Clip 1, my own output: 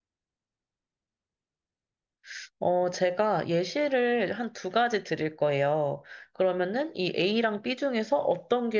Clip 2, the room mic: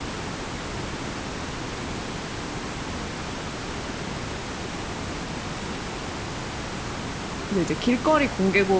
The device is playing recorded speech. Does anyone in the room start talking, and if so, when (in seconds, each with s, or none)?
7.5 s